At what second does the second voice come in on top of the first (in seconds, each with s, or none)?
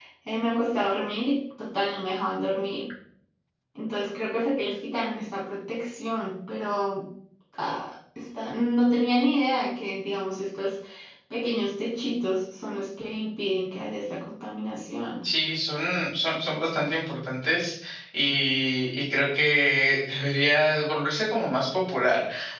none